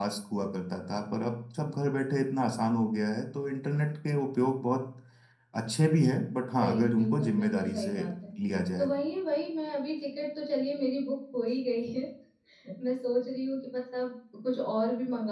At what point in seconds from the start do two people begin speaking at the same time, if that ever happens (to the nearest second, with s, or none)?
7 s